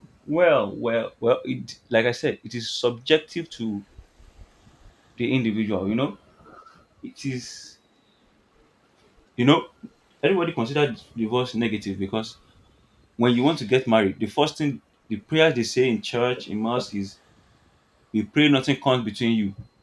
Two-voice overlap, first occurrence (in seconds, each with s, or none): none